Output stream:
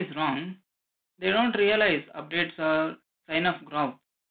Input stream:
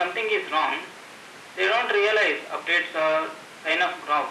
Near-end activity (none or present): none